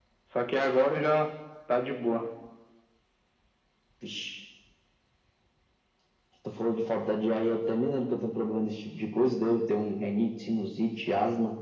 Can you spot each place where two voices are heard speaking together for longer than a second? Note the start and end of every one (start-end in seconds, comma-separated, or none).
none